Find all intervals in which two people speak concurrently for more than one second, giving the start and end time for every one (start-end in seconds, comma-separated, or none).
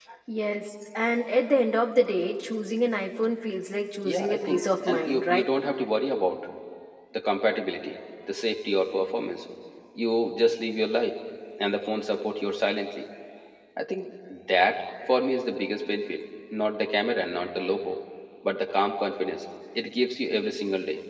4.0-5.4